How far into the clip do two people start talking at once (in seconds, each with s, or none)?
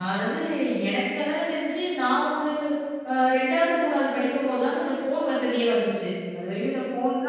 none